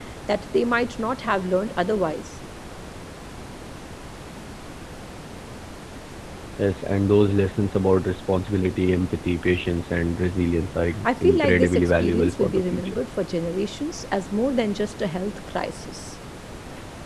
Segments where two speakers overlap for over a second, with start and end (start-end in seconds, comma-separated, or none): 11.0-13.0